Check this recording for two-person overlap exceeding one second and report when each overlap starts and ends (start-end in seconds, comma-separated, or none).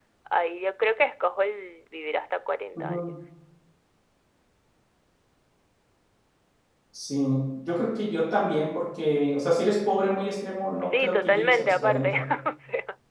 10.8-12.3